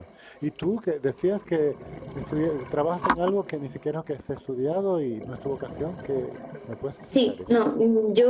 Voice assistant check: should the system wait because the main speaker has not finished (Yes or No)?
No